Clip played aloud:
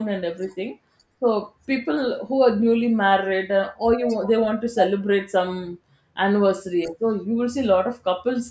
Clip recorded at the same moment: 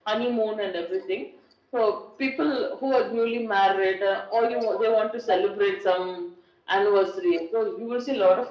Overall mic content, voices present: echo only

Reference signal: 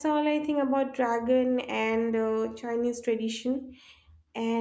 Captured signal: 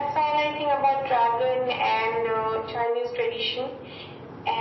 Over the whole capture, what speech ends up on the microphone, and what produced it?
echo only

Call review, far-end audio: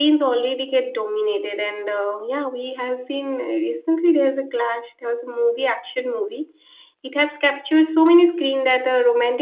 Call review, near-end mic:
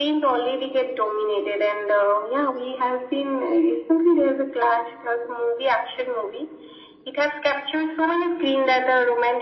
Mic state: echo only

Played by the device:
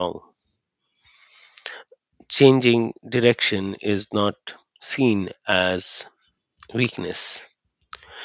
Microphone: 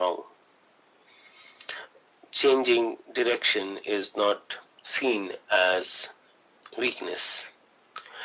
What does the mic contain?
echo only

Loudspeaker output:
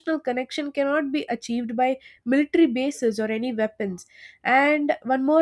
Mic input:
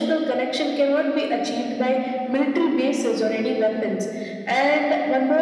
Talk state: echo only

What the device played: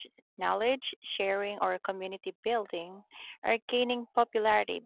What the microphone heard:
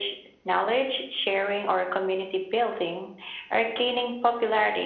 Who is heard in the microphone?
echo only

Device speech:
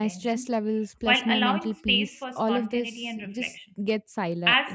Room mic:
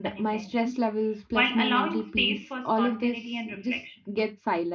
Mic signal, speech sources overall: echo only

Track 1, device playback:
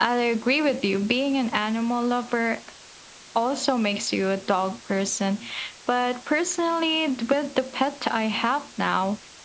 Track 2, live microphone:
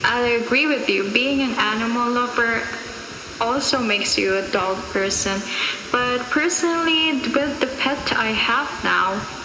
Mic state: echo only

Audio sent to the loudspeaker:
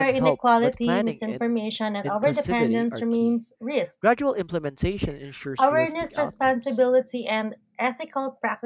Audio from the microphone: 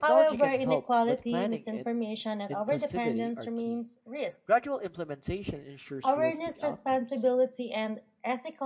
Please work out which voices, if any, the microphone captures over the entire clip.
echo only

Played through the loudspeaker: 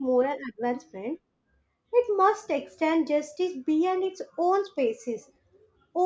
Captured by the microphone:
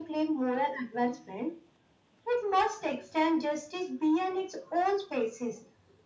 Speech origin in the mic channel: echo only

